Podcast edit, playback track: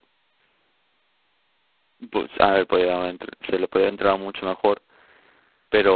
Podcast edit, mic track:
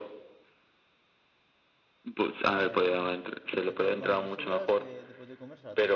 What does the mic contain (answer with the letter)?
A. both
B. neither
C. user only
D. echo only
A